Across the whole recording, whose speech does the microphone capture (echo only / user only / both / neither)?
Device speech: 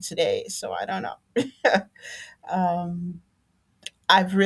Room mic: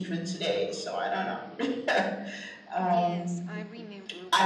both